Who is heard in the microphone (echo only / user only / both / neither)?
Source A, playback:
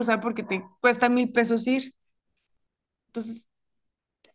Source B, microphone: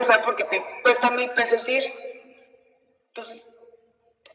echo only